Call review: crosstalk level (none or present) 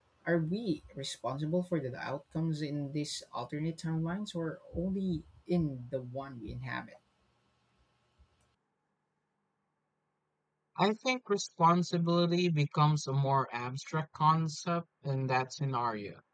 none